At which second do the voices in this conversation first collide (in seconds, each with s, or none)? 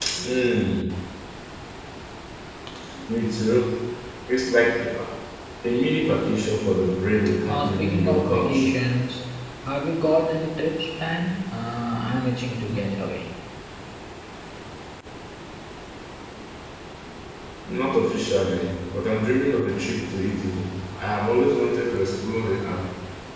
7.5 s